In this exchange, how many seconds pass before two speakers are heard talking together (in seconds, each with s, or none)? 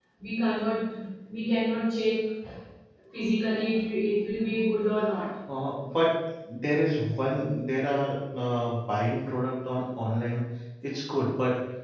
none